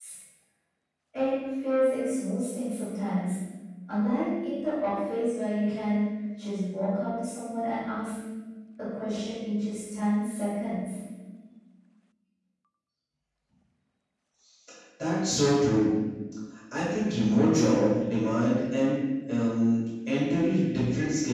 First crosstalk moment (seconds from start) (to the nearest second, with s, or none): none